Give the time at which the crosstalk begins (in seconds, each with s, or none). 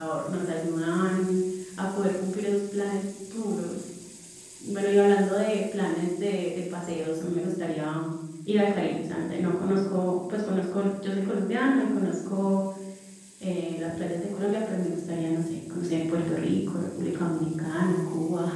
none